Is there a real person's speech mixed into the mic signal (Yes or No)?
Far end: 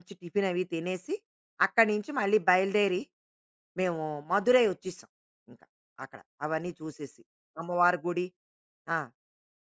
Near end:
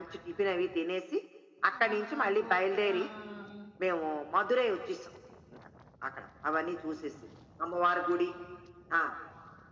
Yes